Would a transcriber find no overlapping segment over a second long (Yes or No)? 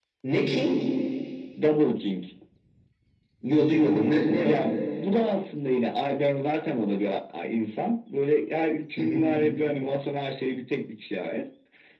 Yes